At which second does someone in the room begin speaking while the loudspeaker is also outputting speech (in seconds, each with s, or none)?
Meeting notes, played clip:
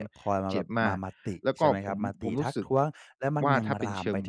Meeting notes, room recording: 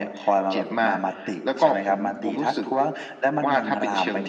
none